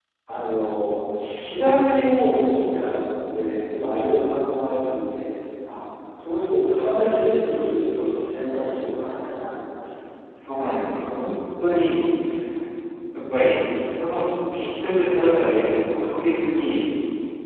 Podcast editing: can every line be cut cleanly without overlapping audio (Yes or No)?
Yes